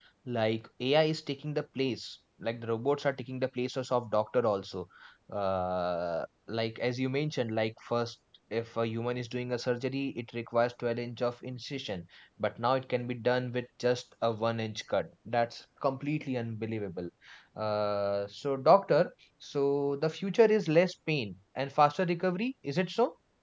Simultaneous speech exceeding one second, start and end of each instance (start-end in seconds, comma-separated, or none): none